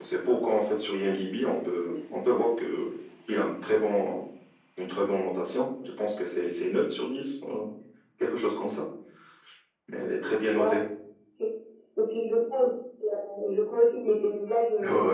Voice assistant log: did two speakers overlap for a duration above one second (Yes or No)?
No